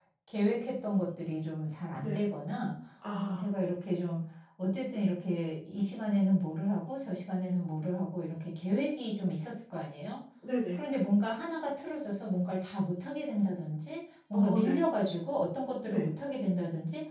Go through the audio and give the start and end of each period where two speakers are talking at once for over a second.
none

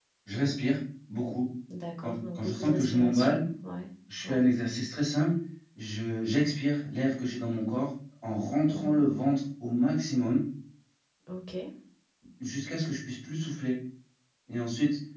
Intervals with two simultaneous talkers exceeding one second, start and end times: 2.0-3.4

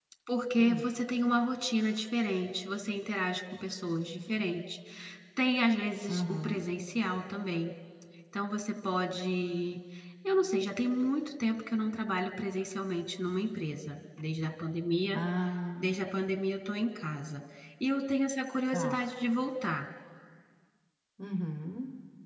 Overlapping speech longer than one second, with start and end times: none

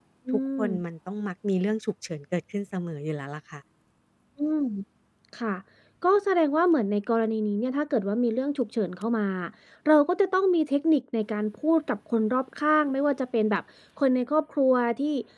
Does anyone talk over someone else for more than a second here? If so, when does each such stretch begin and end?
none

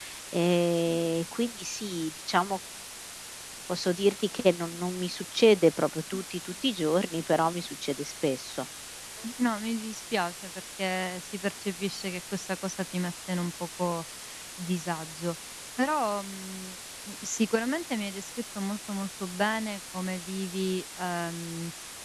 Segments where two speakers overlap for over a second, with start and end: none

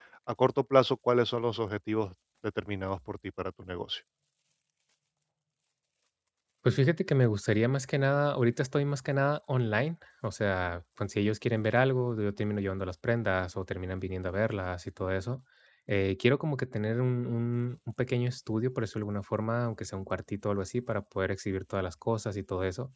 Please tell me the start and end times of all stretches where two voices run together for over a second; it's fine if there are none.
none

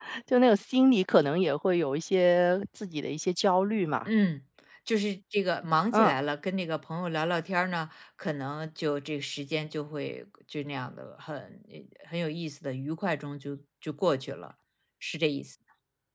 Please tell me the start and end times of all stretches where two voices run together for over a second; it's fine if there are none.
none

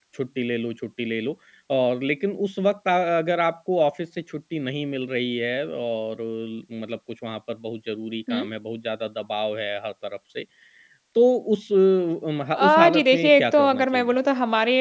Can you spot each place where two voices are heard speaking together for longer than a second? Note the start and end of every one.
12.5-14.1

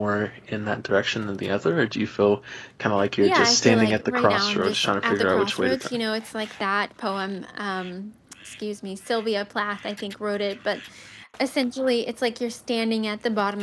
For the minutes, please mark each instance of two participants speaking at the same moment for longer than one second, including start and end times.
3.2-5.9

